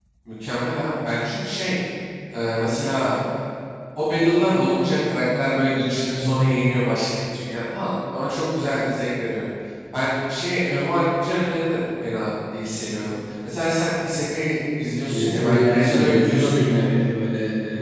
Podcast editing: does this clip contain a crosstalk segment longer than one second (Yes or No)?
Yes